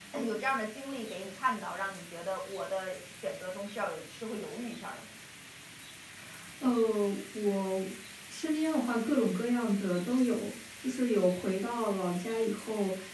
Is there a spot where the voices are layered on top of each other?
No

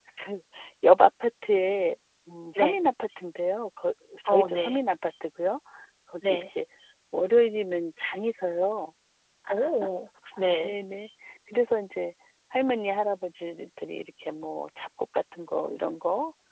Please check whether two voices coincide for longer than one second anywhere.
No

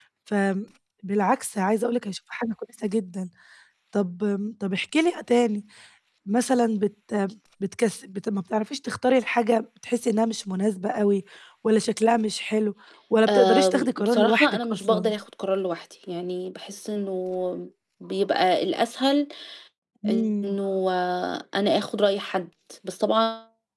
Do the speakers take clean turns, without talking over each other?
No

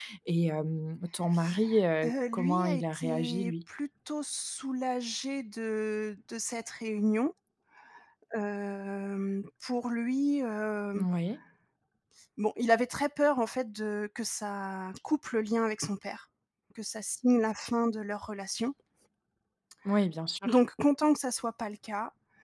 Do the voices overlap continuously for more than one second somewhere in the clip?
Yes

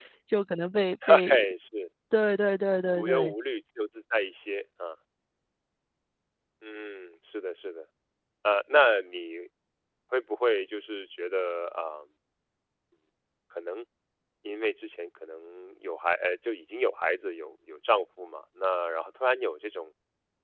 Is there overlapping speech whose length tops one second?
No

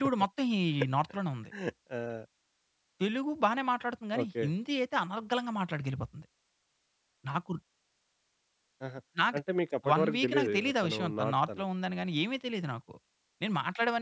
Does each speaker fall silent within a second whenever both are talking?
No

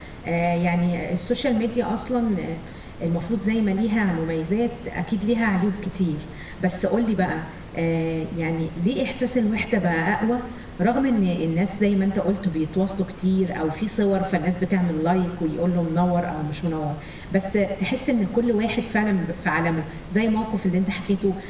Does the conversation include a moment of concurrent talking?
No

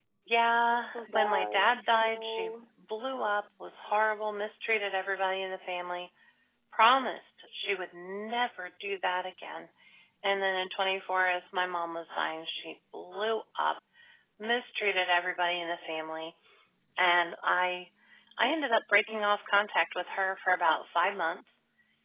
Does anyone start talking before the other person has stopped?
Yes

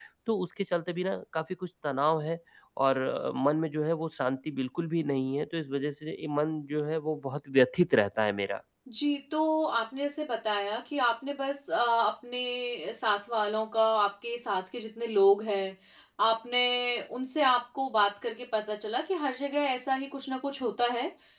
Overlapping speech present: No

